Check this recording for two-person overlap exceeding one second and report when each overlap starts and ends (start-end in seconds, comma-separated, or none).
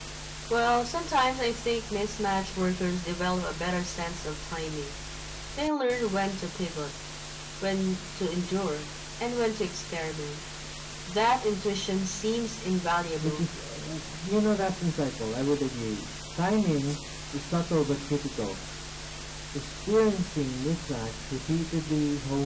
none